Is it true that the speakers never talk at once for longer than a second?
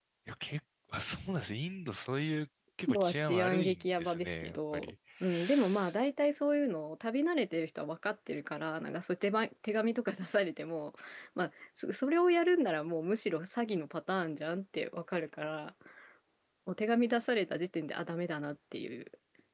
No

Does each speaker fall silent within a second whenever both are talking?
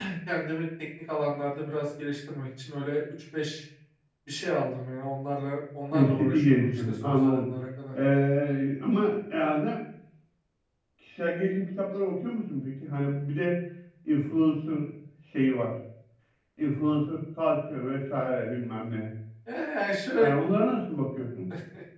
No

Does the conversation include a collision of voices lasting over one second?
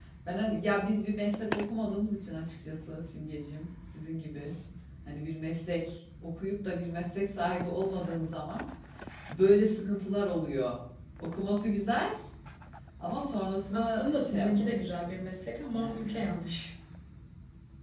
Yes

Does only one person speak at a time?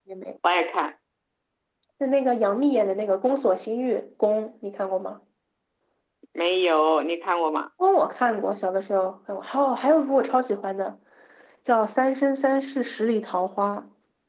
Yes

